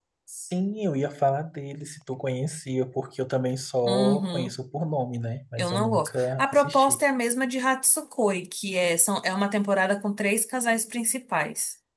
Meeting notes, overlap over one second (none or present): present